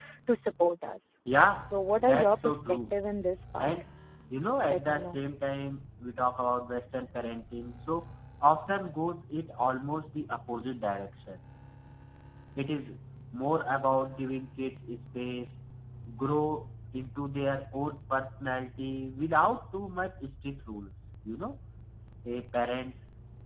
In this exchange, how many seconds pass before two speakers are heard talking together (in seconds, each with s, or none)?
1.6 s